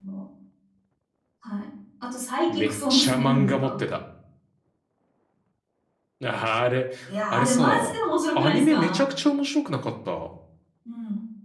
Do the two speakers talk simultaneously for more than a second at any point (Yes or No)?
Yes